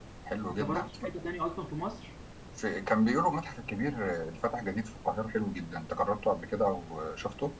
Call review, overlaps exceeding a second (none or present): none